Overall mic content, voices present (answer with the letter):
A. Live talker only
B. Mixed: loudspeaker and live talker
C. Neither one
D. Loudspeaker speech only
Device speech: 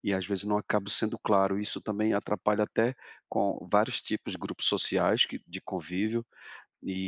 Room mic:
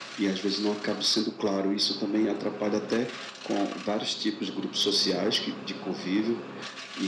D